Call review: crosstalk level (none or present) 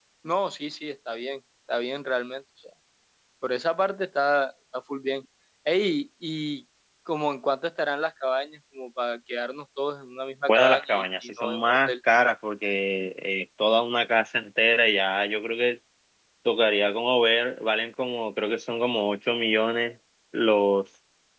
present